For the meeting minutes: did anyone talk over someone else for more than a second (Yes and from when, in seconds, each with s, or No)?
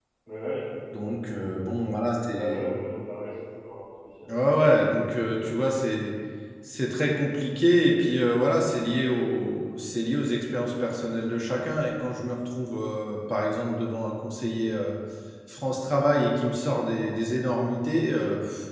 No